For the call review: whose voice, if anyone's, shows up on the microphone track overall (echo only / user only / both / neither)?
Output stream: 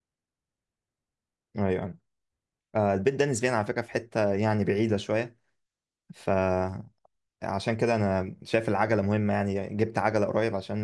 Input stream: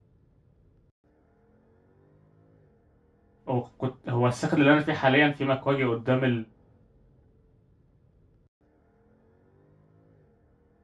user only